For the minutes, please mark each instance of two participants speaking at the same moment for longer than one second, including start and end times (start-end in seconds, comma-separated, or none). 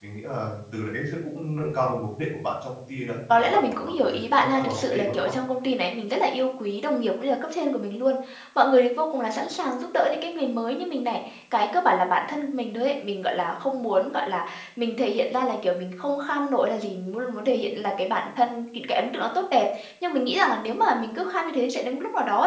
3.4-5.3